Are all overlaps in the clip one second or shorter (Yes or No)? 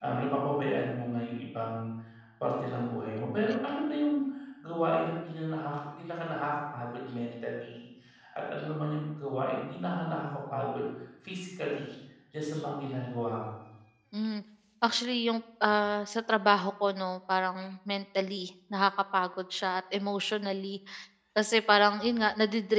Yes